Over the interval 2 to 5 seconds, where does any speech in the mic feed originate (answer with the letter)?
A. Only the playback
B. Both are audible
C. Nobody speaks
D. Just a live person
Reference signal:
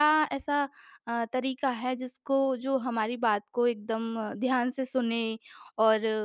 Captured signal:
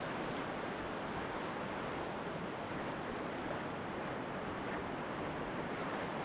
C